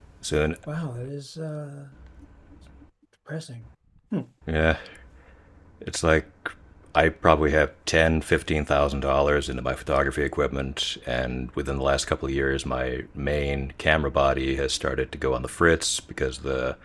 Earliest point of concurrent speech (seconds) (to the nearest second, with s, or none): none